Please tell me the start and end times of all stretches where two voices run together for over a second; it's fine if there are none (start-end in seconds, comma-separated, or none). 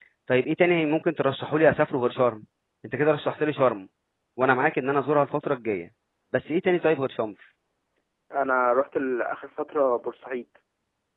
none